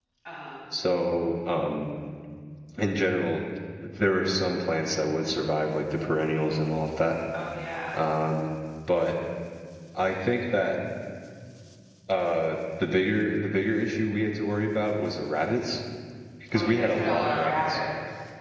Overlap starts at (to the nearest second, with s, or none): 17 s